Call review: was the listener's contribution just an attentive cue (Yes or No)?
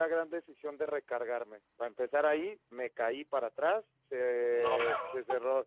Yes